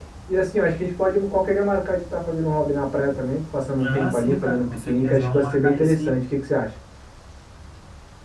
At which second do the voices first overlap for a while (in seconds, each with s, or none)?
3.8 s